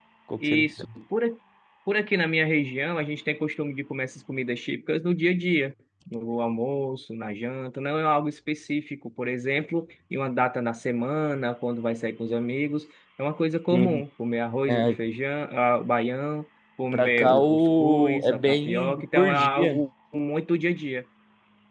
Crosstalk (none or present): present